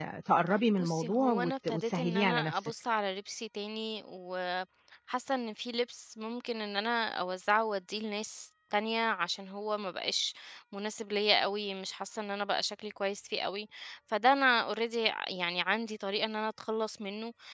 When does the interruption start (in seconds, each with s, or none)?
0.8 s